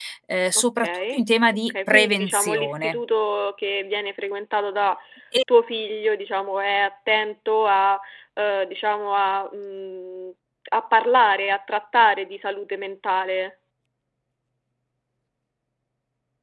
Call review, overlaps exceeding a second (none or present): present